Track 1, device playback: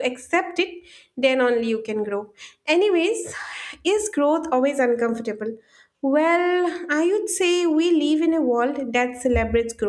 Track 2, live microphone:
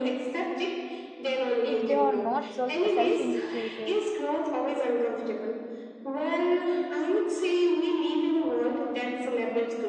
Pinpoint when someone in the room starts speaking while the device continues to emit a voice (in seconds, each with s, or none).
1.6 s